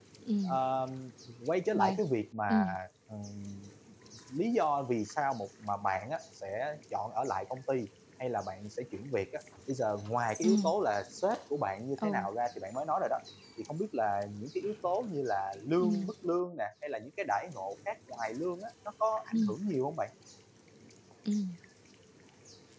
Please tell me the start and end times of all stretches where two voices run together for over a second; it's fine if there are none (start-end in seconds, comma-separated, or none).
none